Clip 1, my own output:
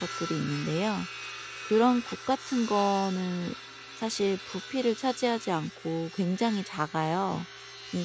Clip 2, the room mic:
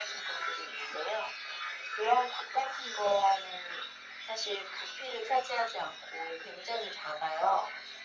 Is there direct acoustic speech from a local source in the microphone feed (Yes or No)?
No